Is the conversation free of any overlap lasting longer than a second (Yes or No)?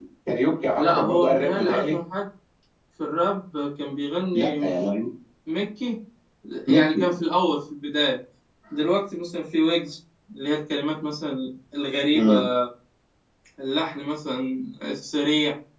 No